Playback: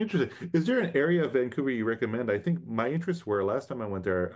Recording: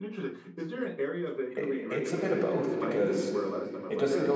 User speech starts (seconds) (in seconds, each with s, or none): 1.6 s